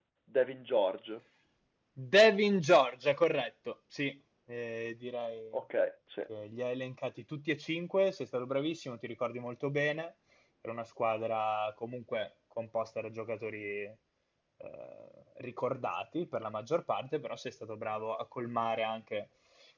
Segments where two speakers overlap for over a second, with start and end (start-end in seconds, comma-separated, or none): none